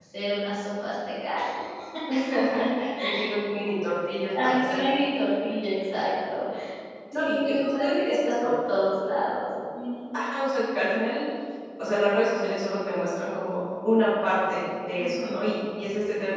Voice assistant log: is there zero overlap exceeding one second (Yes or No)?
No